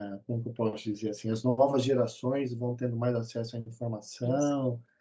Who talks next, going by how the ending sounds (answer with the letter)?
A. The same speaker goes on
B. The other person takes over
A